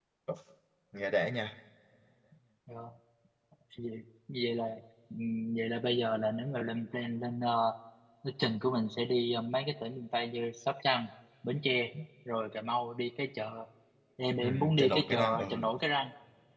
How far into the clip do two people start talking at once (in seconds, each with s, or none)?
14.4 s